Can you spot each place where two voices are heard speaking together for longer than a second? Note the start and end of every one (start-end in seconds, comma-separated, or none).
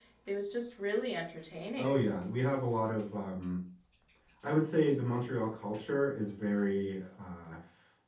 none